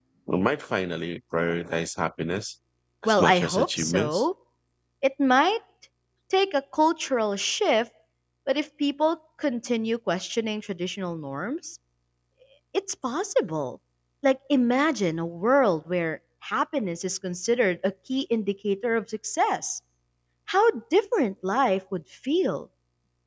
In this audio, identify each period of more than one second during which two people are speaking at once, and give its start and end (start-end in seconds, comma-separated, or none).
3.0-4.2